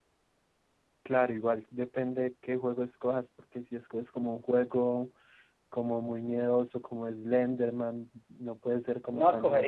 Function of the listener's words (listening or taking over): taking over